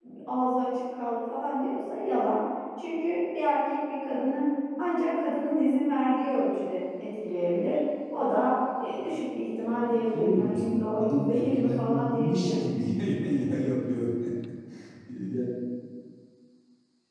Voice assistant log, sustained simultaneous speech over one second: present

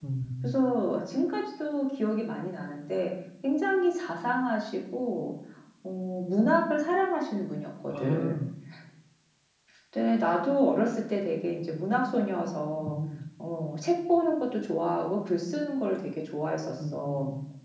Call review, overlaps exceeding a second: none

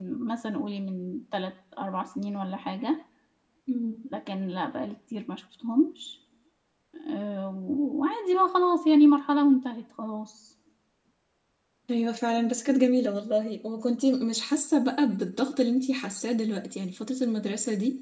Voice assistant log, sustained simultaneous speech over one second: none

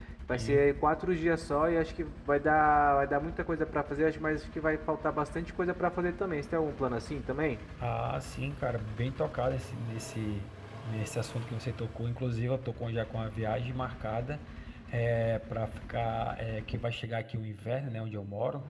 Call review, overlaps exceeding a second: none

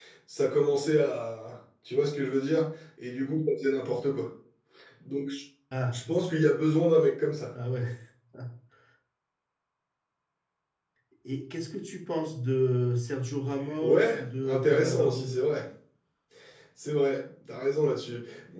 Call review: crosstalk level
present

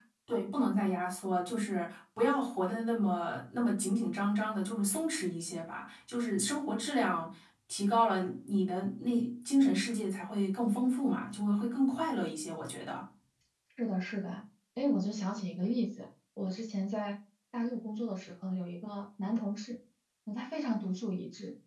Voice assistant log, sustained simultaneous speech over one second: none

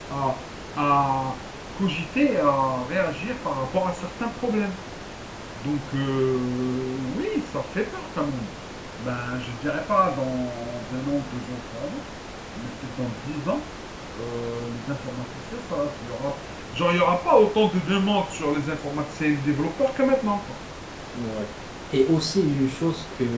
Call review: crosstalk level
none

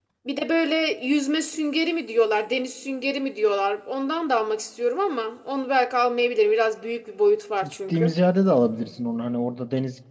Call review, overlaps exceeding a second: none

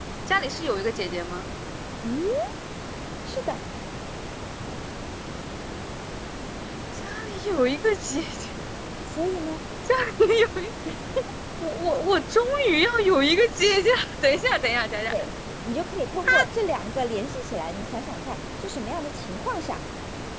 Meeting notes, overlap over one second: none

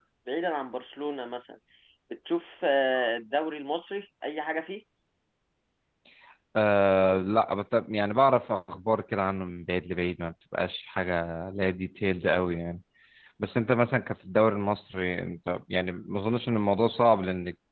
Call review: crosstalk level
none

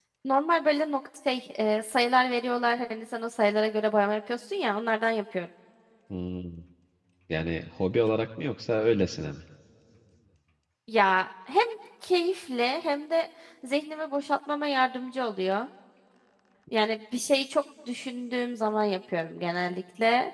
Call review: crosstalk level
none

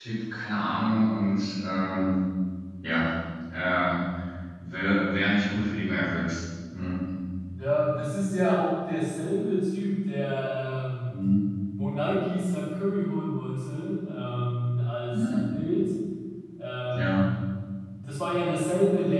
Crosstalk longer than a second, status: none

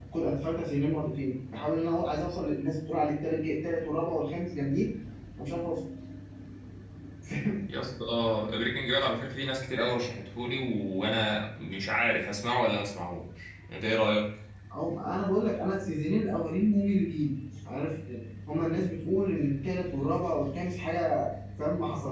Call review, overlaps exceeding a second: none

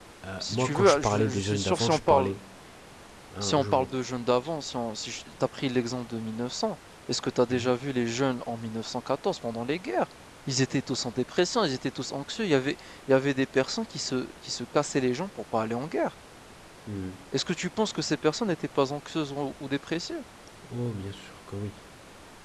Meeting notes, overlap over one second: present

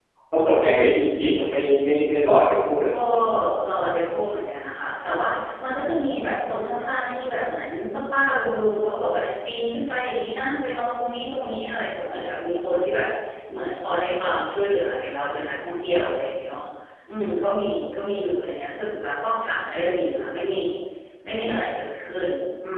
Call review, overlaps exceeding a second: none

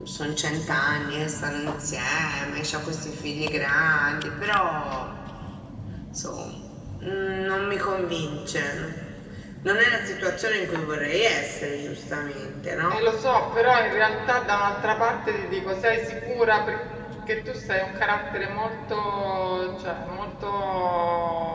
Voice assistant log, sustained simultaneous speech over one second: none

